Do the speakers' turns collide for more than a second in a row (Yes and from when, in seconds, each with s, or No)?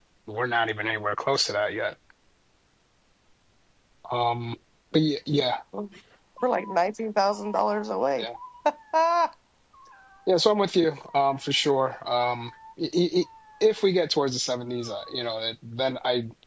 No